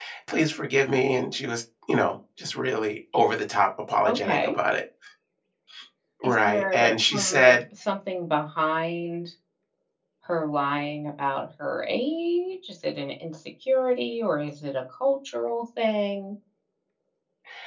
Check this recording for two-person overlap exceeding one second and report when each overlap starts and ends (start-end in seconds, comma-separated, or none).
6.2-7.6